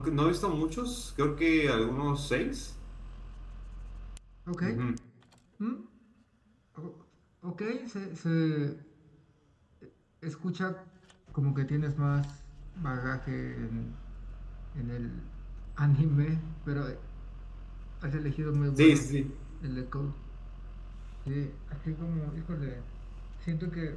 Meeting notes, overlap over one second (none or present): none